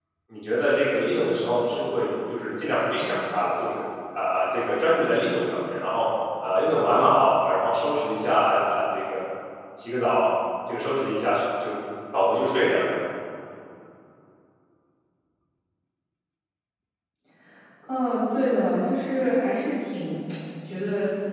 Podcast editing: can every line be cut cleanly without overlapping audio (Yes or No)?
Yes